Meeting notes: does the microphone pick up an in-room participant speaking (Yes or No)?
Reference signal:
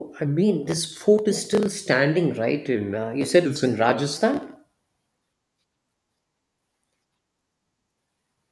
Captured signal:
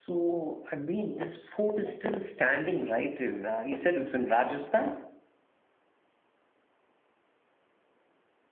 No